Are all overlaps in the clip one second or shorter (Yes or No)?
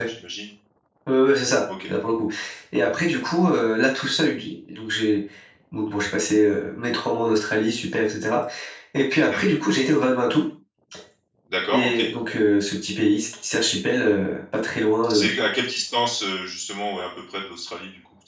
Yes